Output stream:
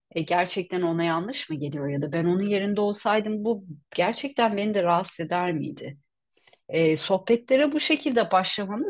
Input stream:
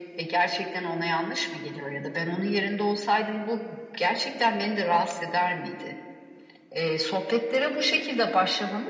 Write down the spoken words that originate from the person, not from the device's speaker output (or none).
none